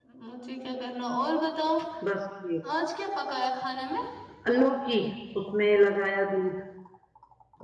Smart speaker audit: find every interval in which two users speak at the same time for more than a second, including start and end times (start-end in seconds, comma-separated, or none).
none